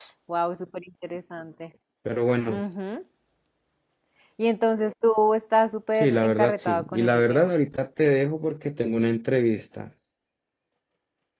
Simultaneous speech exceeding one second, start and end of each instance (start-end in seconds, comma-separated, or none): 6.0-7.5